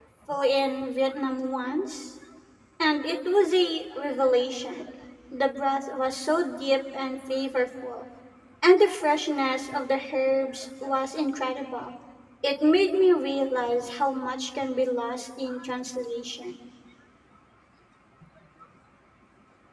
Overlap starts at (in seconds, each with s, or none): none